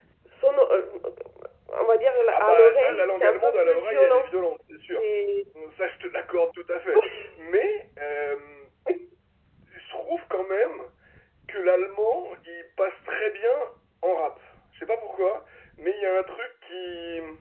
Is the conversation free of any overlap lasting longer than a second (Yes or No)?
No